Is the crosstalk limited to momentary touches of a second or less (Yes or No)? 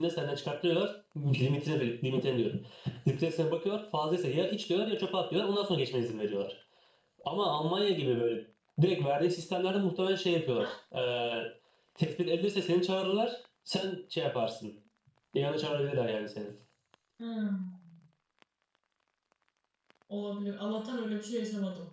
Yes